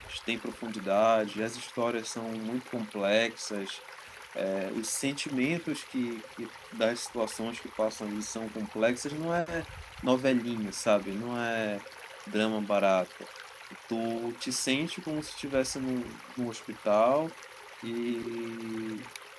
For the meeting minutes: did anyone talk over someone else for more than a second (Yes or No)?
No